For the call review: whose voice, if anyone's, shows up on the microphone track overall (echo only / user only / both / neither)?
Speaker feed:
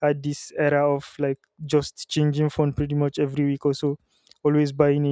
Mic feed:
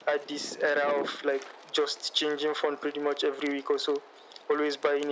echo only